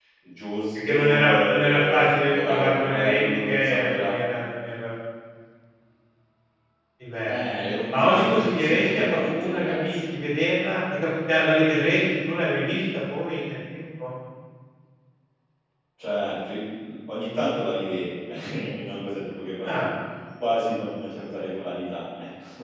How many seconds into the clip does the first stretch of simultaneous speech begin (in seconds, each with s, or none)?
0.7 s